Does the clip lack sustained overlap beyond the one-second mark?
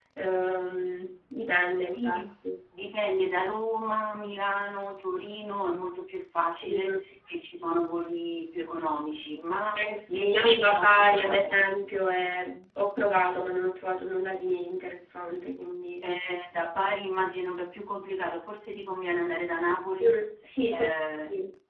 No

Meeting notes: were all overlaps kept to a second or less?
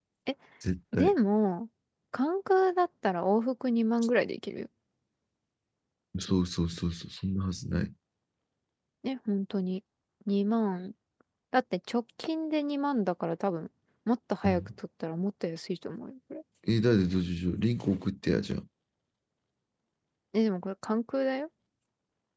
Yes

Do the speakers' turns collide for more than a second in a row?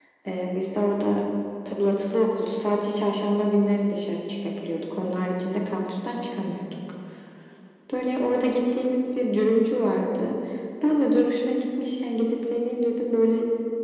No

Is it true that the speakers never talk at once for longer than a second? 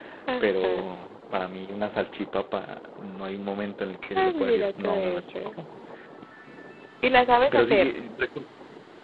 No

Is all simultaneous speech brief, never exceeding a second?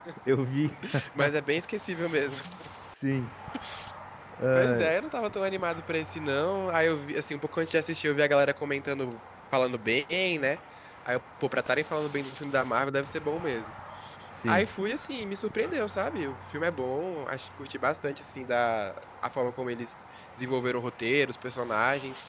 Yes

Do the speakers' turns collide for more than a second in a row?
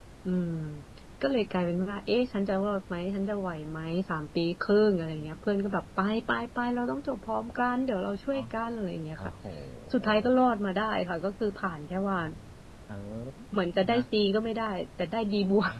No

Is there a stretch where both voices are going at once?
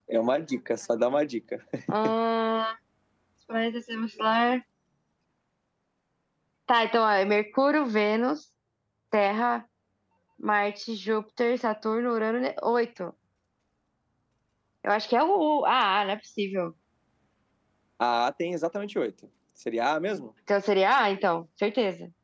No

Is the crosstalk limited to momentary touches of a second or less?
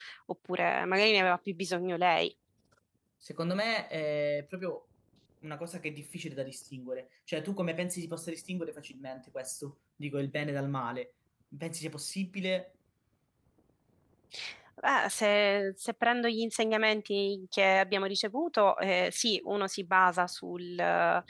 Yes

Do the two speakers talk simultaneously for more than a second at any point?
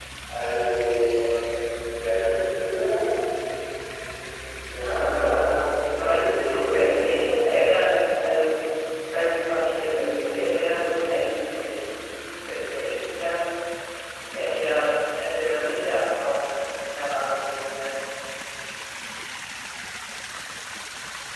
Yes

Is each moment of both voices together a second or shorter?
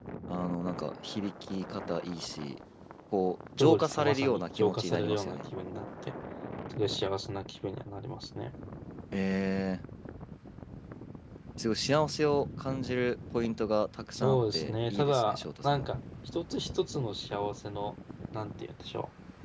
No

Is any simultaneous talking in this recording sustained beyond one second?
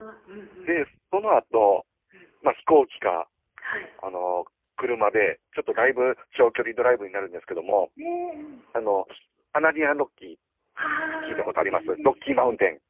Yes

